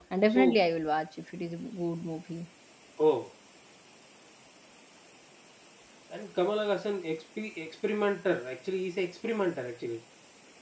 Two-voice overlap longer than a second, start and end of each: none

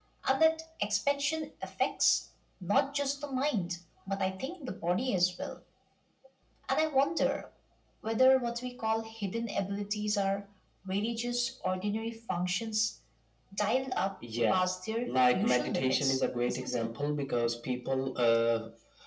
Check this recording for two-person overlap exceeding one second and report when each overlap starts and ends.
15.1-16.9

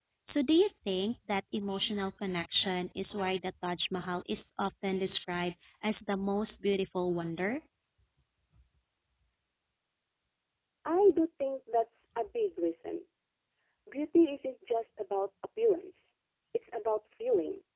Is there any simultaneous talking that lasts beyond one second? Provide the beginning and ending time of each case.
none

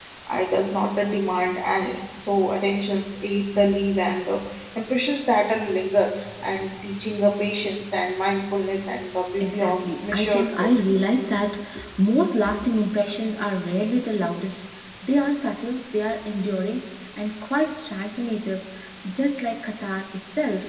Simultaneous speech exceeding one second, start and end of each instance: 9.4-10.7

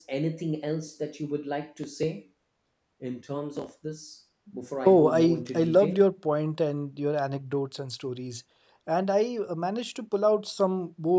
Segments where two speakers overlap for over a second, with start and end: 4.8-6.1

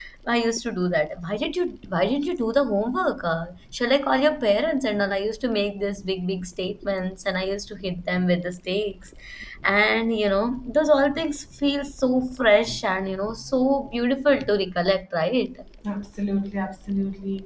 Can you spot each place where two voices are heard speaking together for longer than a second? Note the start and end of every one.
none

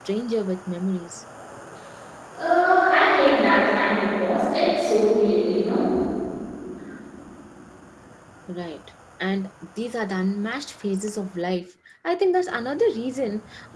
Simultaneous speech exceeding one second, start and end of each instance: none

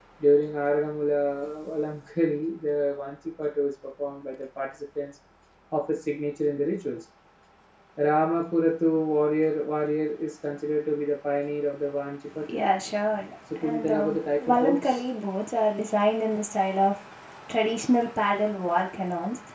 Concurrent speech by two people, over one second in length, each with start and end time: 13.6-15.1

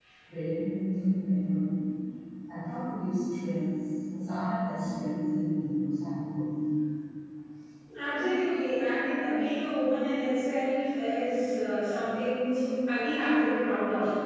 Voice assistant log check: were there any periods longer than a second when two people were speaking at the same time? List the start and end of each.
none

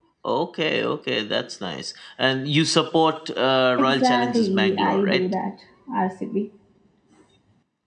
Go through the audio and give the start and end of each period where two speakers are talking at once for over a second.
3.8-5.2

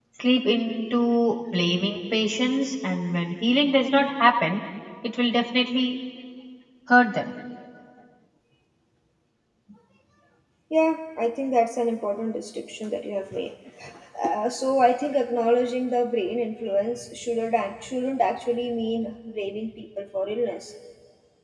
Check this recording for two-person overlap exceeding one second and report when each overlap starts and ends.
none

